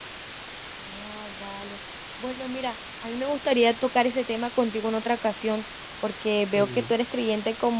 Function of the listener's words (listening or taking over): listening